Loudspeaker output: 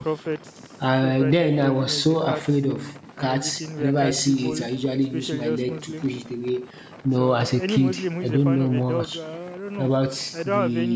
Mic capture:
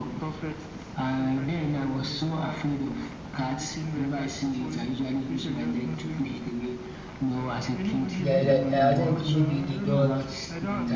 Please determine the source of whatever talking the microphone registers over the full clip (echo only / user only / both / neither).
both